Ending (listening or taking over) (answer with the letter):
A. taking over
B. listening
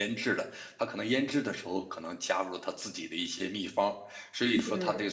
B